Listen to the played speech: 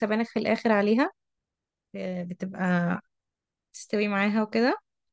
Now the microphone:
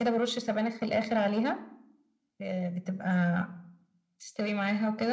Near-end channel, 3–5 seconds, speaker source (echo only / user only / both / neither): echo only